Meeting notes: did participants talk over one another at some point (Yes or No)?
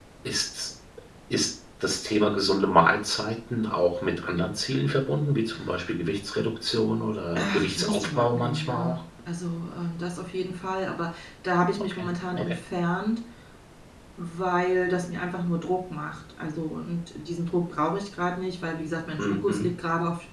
Yes